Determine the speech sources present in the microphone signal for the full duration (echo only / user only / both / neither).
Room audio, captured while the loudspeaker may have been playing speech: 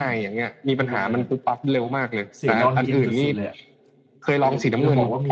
both